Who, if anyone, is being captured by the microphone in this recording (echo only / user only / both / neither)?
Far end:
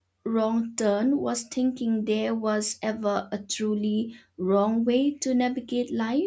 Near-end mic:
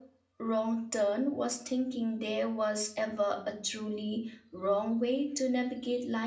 echo only